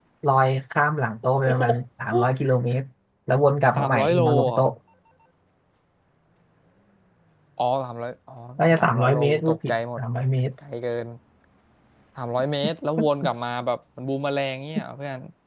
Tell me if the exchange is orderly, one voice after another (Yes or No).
No